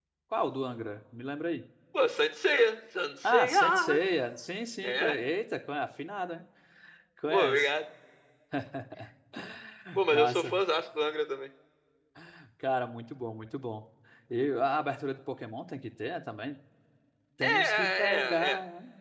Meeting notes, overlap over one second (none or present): present